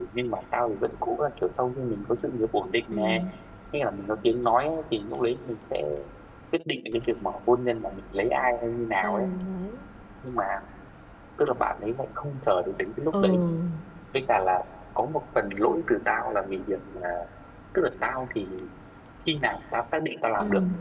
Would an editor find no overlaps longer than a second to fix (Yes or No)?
Yes